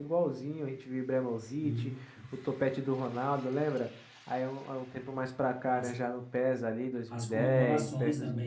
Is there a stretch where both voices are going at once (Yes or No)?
Yes